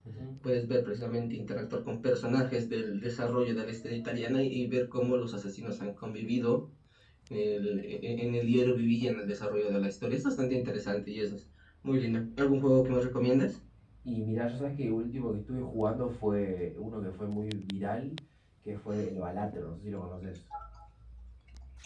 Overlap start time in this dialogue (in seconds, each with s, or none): none